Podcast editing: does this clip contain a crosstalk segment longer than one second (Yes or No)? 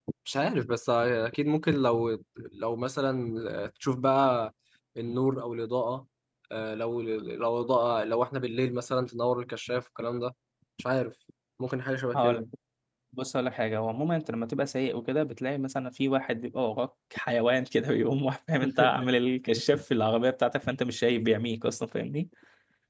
No